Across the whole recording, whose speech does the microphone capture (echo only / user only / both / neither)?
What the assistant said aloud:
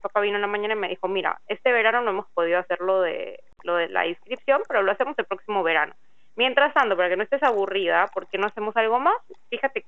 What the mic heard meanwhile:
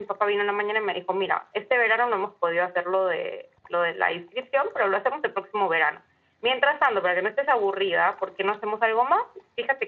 echo only